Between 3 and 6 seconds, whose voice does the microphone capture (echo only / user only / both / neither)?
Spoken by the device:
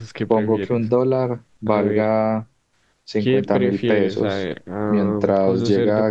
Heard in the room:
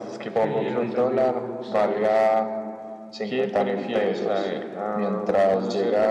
echo only